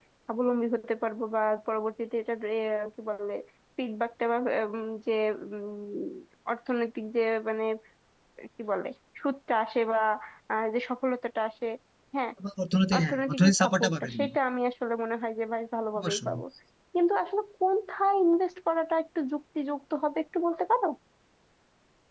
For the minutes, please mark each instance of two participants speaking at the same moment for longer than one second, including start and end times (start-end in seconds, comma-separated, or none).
12.9-14.3